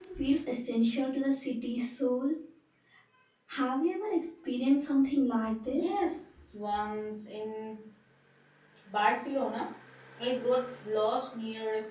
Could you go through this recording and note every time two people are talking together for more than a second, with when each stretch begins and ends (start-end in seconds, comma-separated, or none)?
none